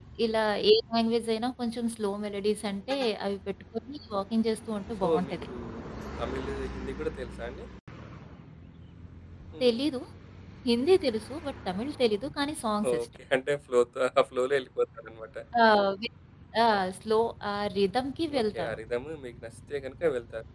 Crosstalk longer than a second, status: none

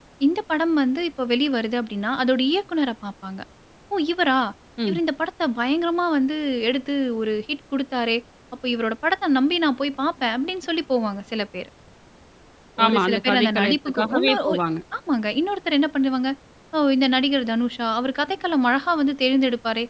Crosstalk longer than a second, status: present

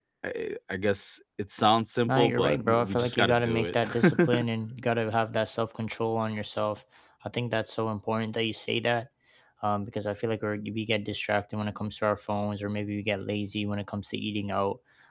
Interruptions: present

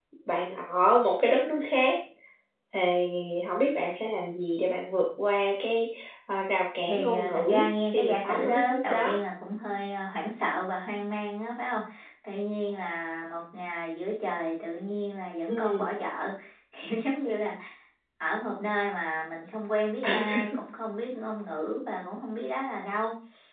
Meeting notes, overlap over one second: present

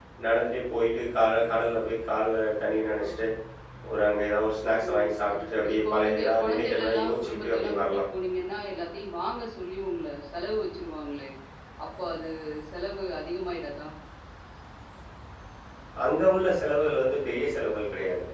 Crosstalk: present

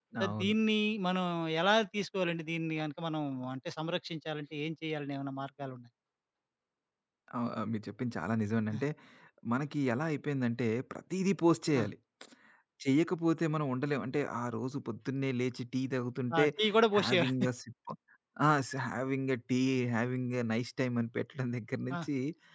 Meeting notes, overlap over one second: none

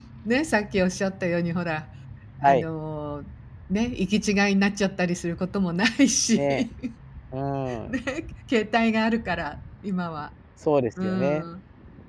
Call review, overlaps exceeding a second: none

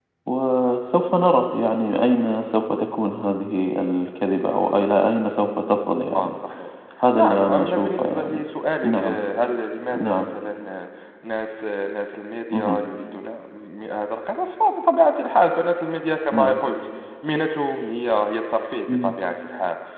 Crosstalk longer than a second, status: present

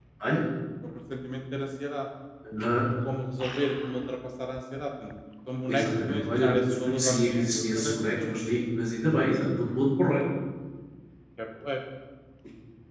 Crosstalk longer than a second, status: present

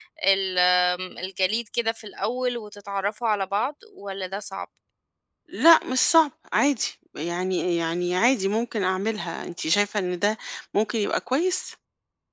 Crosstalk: none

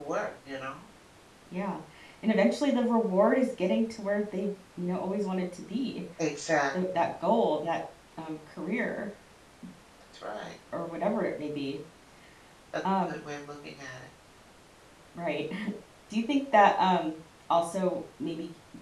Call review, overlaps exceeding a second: none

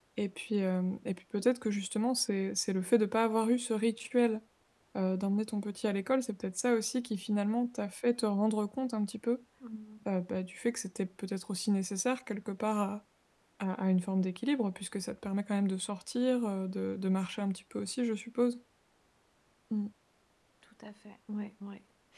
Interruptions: none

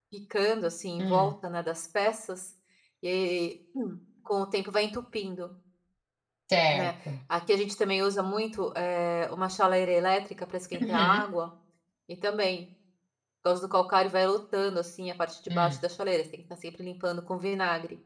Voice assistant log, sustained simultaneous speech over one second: none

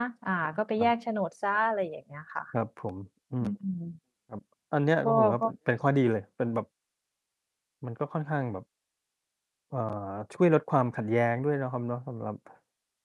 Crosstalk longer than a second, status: none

